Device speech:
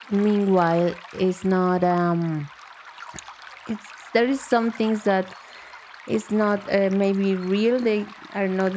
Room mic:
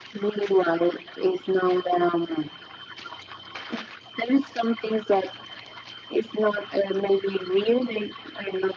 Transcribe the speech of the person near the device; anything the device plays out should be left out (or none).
none